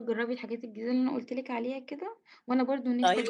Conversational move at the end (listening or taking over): listening